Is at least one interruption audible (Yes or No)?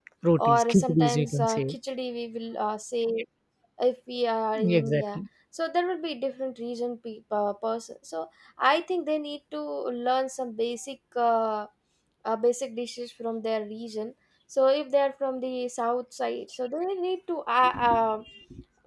Yes